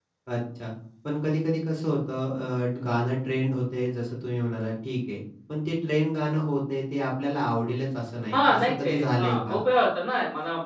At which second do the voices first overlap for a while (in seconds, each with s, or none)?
8.3 s